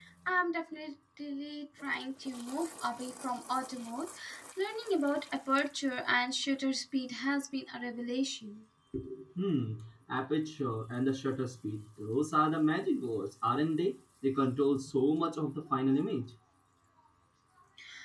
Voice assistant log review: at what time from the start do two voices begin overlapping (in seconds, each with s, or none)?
none